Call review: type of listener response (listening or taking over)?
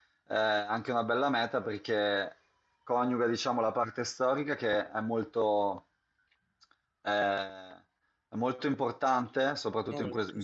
listening